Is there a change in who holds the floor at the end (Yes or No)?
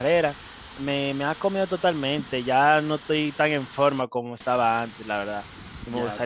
Yes